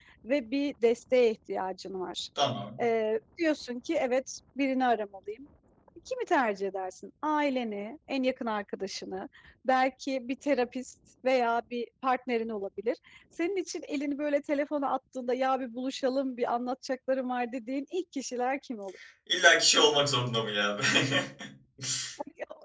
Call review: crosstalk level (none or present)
none